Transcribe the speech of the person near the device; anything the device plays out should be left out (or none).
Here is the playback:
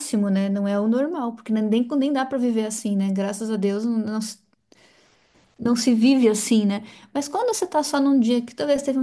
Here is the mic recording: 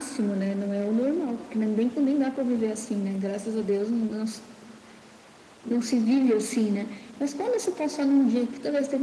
none